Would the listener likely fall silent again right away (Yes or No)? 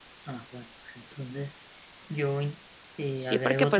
No